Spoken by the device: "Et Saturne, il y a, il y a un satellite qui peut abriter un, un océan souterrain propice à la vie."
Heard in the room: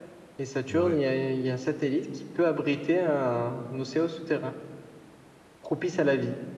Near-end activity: present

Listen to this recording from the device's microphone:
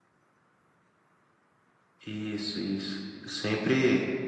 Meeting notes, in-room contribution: present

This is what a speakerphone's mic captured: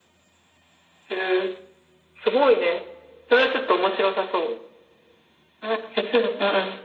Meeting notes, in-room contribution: none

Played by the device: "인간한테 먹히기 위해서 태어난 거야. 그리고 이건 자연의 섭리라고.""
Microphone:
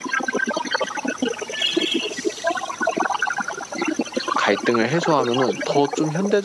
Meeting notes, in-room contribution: present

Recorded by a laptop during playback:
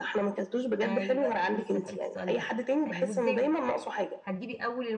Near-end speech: present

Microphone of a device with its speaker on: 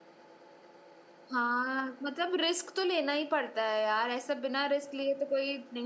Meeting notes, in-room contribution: present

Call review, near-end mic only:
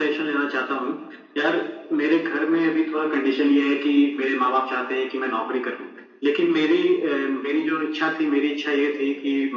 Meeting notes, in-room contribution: none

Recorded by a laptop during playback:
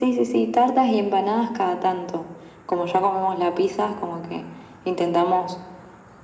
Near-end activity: none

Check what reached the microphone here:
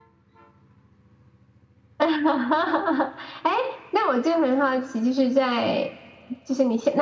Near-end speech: none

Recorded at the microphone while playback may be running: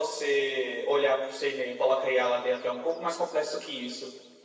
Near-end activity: none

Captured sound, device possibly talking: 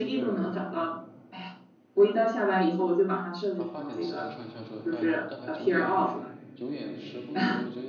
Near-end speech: present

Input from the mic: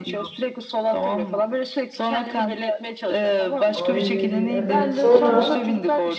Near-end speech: present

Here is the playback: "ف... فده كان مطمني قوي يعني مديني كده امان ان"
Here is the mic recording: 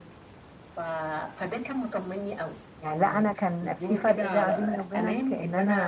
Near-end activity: present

